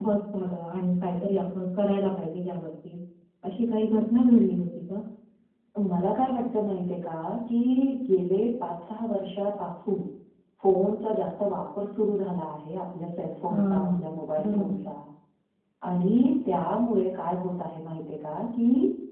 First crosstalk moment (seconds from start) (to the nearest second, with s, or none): 13 s